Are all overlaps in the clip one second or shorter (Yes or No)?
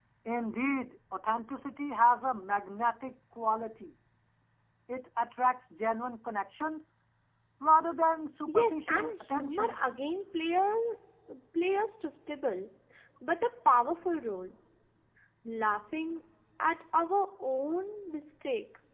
No